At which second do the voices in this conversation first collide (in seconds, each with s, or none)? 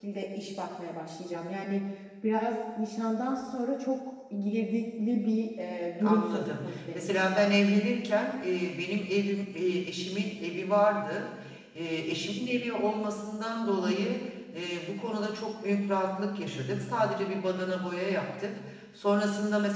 6.0 s